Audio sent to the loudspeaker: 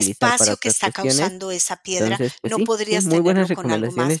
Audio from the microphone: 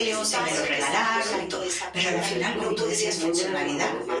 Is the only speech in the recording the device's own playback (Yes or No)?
No